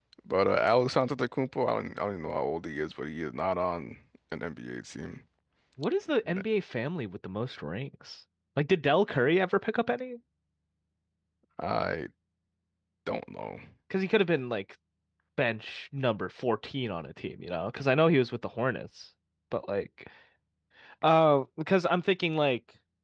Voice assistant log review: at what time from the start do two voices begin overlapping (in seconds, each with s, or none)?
none